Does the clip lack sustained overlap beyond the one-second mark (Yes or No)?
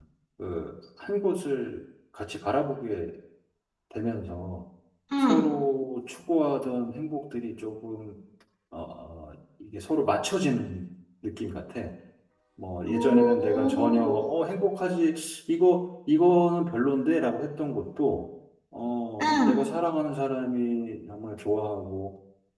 No